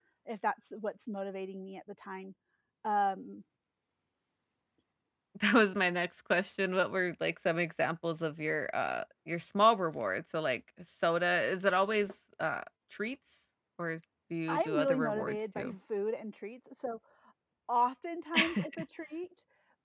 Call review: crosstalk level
present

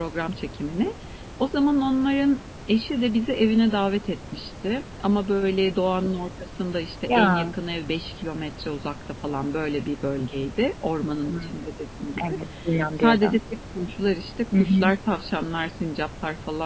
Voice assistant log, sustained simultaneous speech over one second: none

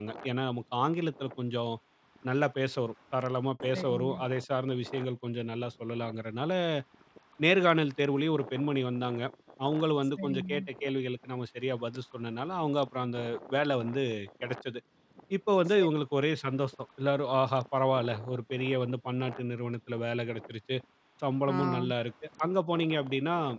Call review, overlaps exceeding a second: none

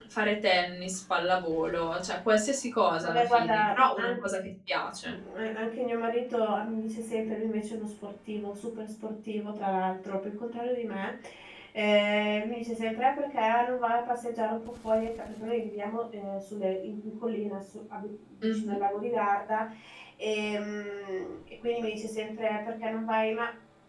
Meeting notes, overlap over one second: present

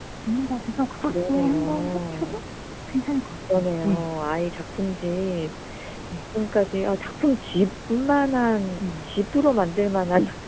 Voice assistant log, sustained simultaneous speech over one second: present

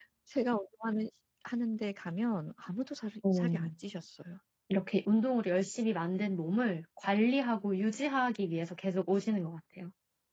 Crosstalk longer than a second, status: none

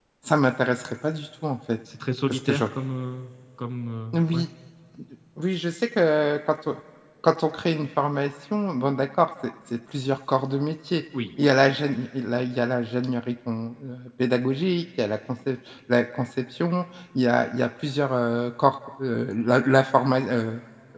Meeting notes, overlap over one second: none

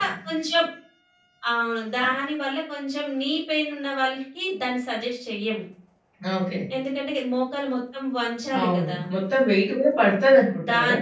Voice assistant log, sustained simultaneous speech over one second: none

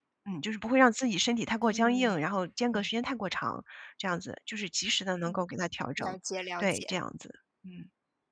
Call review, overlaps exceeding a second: none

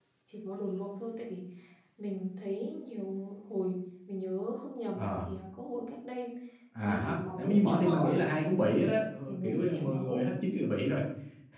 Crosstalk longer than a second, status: present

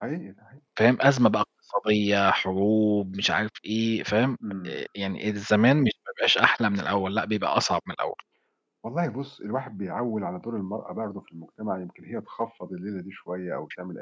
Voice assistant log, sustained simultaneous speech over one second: none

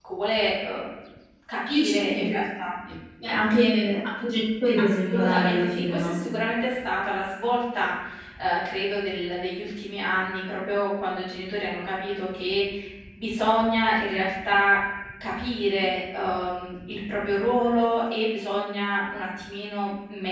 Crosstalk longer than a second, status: present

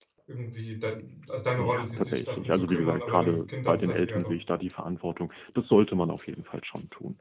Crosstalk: present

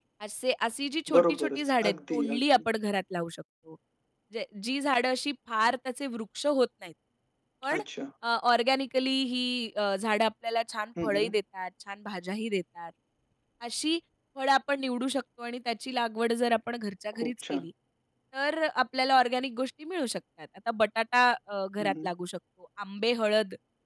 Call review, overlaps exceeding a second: present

